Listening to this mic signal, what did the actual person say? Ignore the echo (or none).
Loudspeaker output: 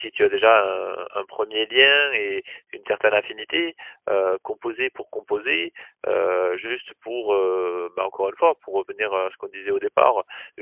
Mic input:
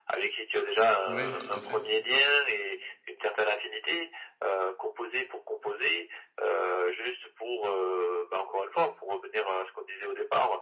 Oui, tout à fait,